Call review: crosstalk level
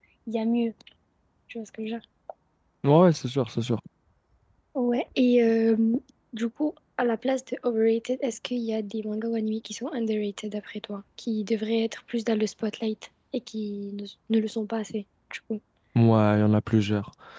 none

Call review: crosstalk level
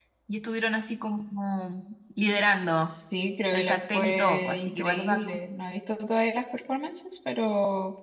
present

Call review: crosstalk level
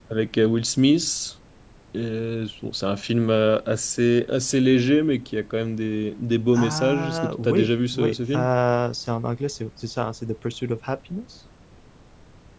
present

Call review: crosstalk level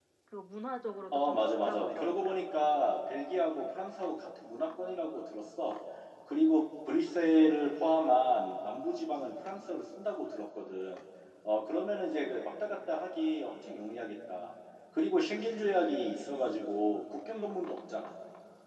present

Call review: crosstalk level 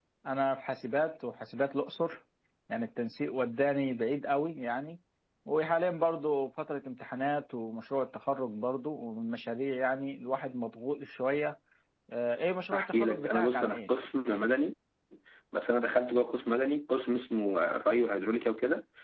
present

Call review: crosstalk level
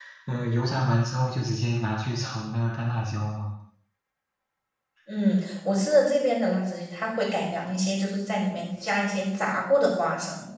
none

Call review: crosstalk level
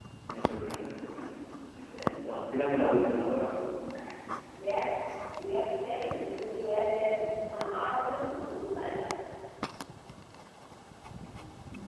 none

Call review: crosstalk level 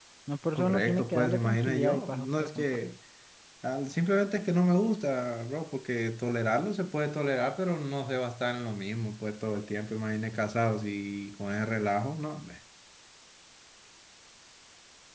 present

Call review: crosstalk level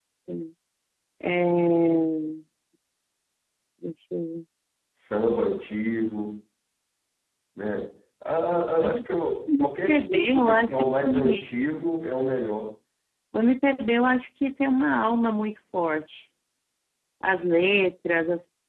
present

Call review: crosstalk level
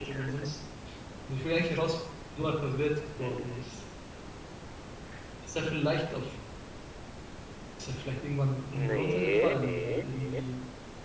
present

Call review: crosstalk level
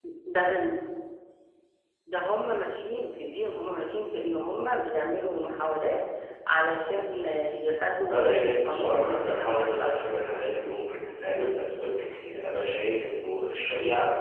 present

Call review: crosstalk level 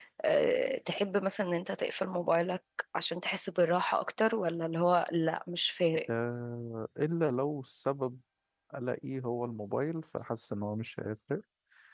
none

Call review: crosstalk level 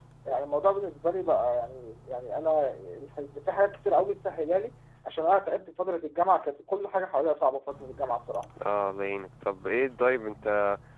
none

